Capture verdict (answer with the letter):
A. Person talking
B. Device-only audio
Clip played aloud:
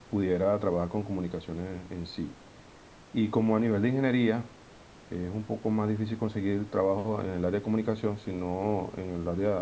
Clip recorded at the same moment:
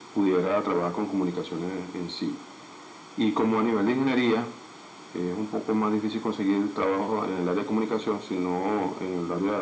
B